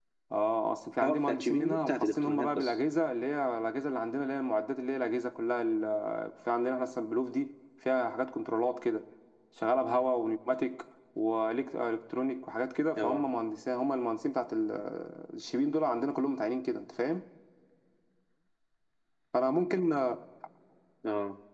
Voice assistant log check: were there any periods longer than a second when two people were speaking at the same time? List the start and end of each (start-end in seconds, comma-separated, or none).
1.0-2.7